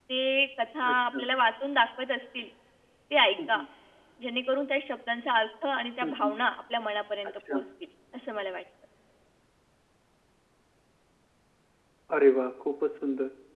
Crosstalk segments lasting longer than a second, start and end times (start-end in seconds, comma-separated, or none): none